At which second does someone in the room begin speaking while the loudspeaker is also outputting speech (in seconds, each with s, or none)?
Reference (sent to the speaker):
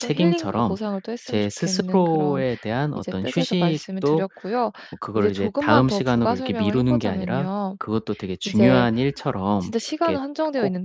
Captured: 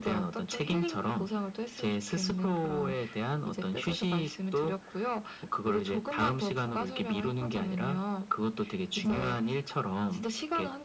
none